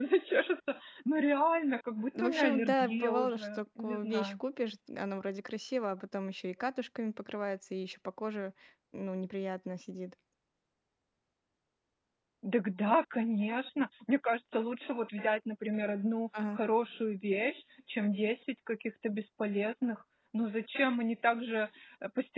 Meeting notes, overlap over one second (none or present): present